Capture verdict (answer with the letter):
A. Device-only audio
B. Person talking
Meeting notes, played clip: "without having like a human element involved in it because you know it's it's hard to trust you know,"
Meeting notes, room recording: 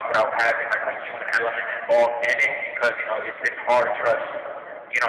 A